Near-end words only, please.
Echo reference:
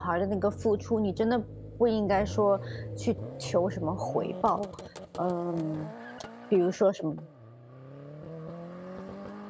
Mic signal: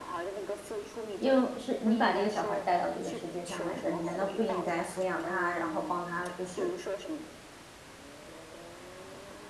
因为是你把这个小孩儿带到这个世界上来的，你难道不应该抚养他，然后帮他就是

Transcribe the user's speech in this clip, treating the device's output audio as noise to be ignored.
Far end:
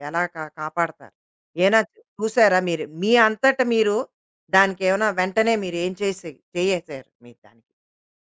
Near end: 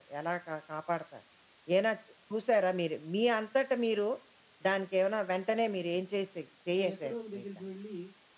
అవి ఎక్కడో ఒక దగ్గరికి వెళ్ళి

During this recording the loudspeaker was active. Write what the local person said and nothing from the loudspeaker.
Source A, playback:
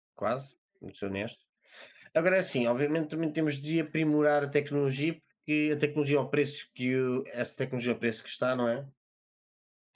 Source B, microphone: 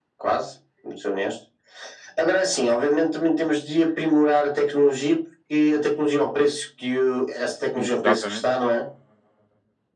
Exatamente.

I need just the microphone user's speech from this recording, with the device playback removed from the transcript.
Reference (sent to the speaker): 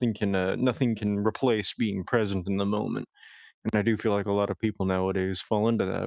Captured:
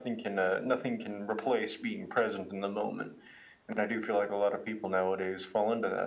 none

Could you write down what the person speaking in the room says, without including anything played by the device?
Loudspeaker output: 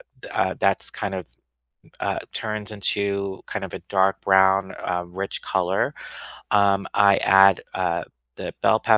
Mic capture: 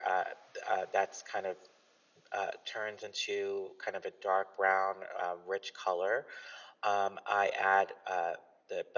none

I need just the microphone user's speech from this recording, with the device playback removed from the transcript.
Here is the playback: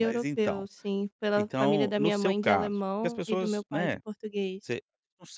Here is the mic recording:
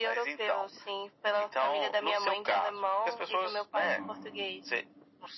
aham.

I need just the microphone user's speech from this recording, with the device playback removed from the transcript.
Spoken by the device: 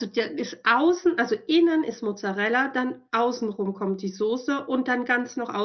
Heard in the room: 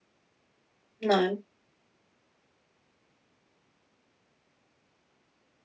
nein.

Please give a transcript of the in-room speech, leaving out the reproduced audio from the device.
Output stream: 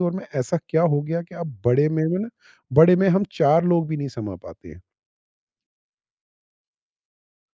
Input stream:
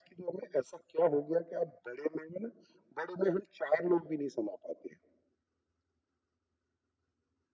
none

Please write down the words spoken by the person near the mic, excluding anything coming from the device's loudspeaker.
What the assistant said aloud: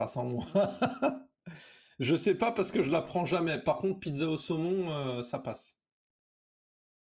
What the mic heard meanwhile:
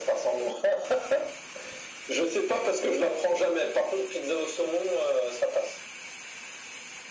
none

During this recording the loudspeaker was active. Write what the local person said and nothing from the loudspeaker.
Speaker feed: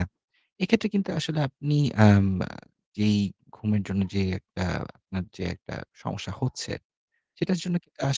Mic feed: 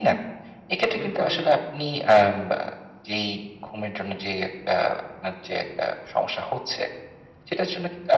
এর ফলে

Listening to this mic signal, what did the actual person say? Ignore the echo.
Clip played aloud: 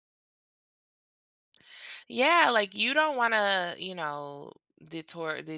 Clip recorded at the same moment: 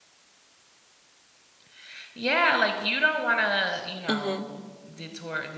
Mhm.

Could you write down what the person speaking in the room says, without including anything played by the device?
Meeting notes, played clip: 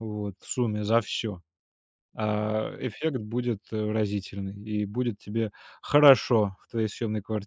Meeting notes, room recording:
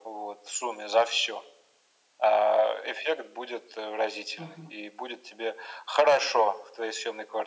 Мгм.

